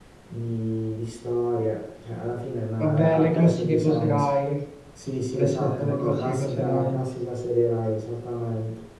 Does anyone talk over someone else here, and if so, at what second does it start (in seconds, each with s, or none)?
2.8 s